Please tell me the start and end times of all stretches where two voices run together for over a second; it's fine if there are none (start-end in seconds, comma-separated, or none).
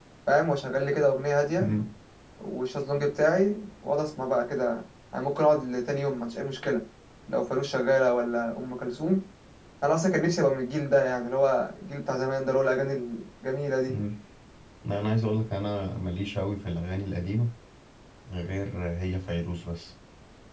none